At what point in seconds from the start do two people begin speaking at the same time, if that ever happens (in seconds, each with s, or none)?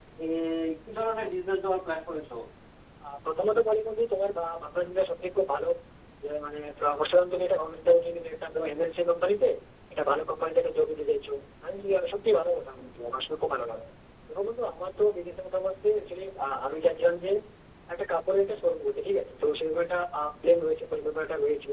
none